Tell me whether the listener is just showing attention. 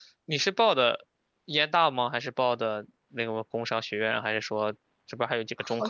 No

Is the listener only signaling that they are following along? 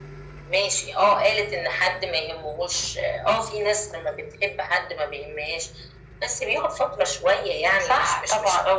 Yes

